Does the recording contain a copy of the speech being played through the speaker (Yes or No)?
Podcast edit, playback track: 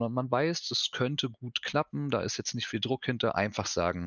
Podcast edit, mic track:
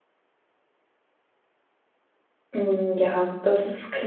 No